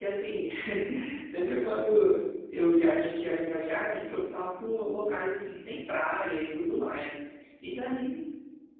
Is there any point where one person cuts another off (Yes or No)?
No